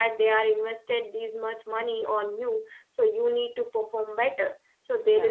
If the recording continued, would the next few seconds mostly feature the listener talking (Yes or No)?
No